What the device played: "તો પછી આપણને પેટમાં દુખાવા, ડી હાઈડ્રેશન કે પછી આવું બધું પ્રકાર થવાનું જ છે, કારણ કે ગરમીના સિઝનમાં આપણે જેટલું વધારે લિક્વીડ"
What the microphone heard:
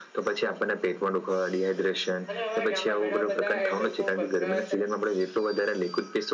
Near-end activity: present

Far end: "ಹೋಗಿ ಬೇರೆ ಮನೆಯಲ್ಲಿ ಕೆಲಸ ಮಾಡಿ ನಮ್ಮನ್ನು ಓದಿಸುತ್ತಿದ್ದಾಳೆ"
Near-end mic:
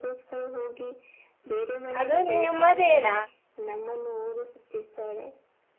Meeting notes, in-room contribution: present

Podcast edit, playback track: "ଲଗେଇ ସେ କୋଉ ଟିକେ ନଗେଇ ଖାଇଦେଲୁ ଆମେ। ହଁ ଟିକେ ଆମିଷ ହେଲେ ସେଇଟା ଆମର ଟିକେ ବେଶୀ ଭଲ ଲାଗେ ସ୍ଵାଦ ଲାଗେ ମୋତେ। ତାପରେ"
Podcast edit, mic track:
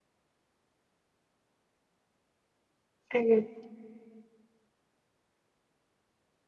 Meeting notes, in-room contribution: present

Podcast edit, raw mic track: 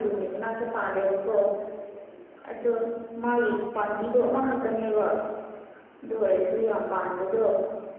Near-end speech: none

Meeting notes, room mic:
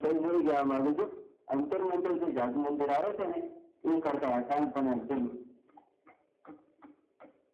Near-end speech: none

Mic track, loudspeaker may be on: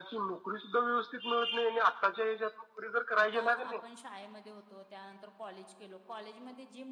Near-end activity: present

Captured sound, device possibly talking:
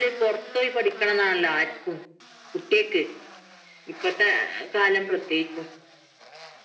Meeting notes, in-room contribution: none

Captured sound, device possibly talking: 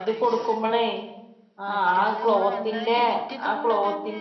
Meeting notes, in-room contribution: present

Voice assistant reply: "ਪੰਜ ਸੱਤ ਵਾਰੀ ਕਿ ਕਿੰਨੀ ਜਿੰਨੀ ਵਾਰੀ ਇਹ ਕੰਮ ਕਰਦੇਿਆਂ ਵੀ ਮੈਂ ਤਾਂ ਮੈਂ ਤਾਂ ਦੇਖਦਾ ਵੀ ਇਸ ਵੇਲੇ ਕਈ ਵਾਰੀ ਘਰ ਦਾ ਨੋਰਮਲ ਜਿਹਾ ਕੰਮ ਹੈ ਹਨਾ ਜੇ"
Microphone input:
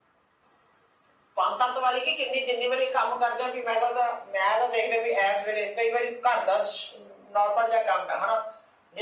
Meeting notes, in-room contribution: none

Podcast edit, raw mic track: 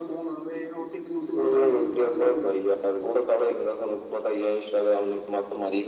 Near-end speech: present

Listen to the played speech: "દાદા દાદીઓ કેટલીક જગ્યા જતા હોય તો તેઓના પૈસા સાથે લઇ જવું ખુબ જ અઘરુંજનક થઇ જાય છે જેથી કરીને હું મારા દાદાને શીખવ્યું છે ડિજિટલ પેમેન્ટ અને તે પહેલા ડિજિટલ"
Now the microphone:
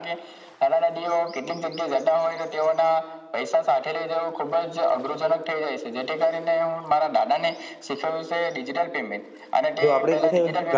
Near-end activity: present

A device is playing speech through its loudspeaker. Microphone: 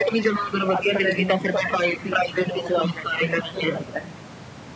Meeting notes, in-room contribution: none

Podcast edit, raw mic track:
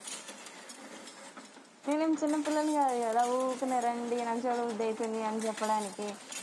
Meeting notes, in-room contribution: present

